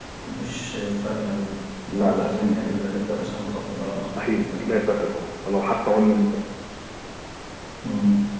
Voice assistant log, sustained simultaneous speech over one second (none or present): present